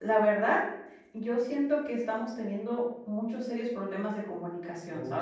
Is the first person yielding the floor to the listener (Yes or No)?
Yes